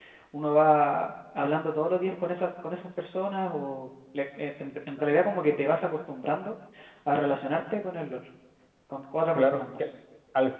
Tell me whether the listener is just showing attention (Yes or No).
No